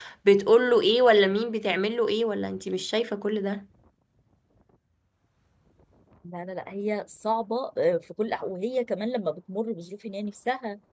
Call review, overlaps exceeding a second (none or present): none